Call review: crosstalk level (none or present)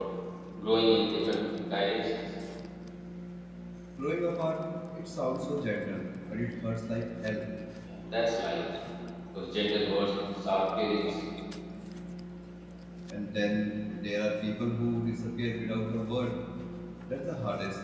none